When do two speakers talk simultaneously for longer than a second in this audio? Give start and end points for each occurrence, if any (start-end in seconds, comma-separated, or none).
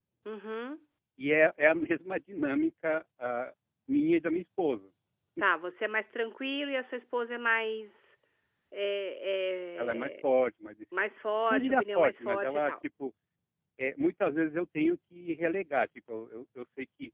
11.5-12.7